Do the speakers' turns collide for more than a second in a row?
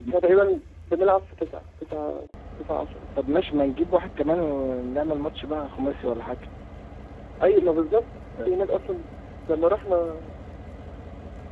No

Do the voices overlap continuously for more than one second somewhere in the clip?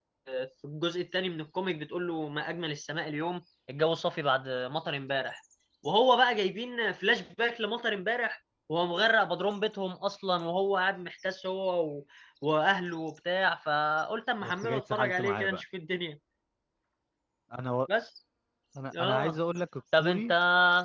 Yes, from 14.4 s

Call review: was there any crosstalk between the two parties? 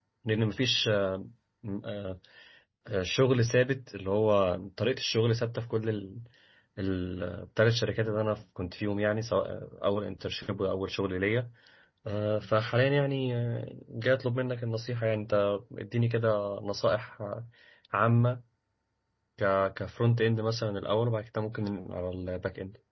No

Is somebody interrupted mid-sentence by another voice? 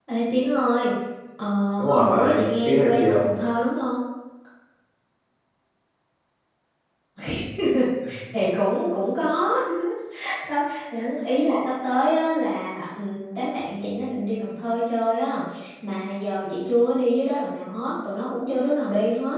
Yes, from 1.9 s

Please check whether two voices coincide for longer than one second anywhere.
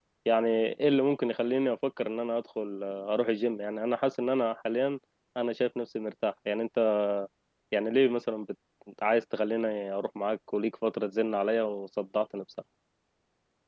No

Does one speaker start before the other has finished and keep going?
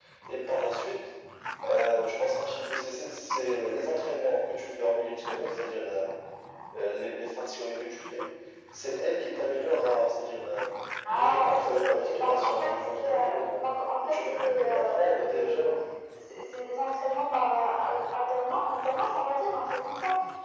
Yes, from 11.1 s

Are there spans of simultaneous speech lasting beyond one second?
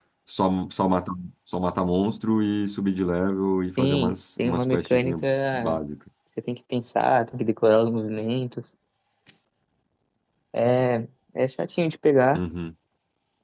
Yes, from 3.8 s

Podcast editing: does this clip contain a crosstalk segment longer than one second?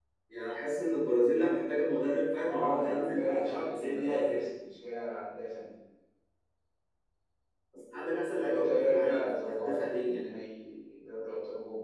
Yes, from 2.4 s

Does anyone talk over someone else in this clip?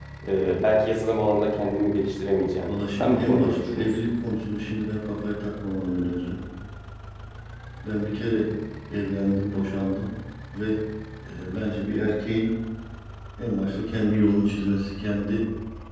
Yes, from 2.7 s

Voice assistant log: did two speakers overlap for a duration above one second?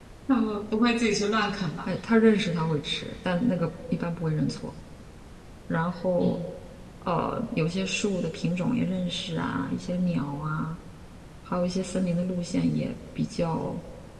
No

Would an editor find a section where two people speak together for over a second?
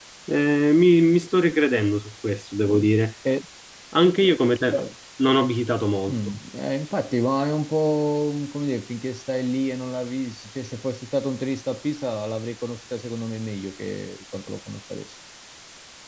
No

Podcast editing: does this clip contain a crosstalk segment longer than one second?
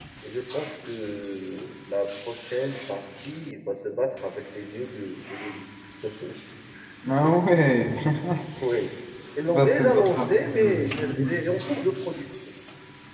Yes, from 9.5 s

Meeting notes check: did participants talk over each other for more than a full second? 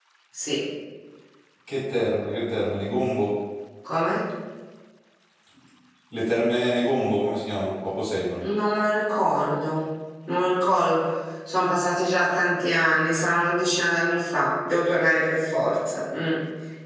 No

